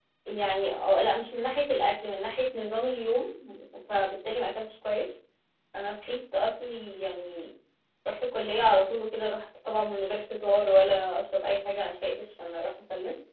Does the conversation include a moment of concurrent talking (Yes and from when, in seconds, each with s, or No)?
No